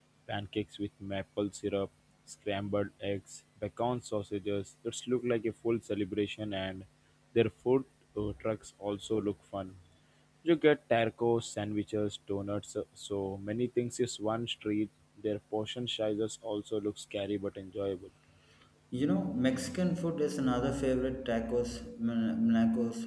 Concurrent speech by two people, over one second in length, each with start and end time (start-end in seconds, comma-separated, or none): none